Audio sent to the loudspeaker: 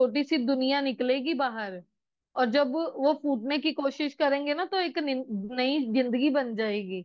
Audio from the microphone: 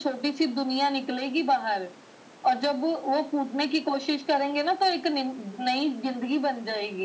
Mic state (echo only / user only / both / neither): echo only